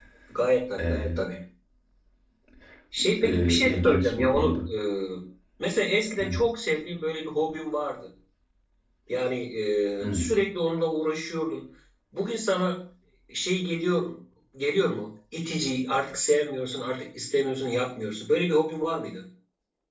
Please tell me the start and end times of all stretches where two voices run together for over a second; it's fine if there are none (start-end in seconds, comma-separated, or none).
3.2-4.6